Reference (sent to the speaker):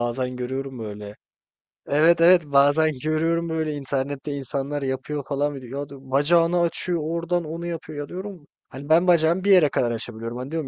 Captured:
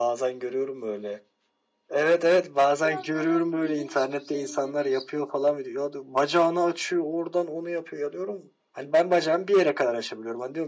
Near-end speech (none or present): present